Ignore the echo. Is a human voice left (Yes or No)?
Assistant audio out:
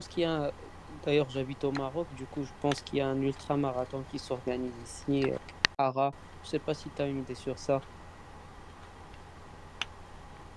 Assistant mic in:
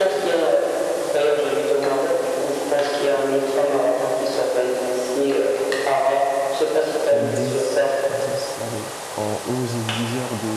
Yes